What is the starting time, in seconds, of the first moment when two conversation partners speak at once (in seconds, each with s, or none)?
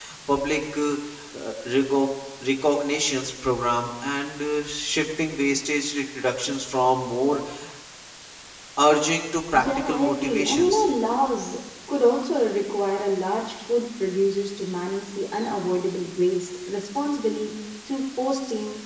9.5 s